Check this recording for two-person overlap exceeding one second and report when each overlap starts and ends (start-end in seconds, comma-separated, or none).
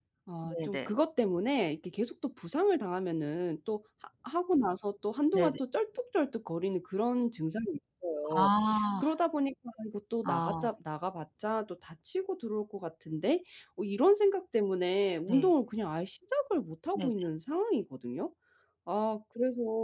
none